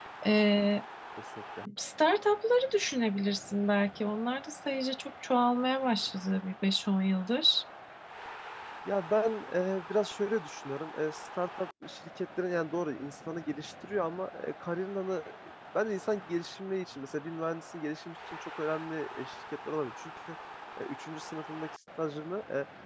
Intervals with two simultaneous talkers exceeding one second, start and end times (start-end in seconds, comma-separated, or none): none